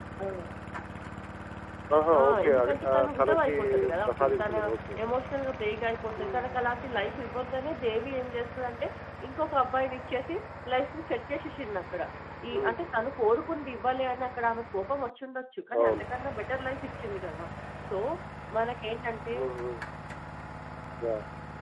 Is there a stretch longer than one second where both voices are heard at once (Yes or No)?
Yes